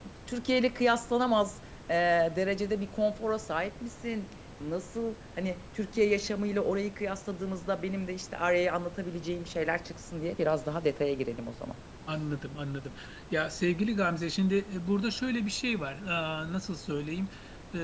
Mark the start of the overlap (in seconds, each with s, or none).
none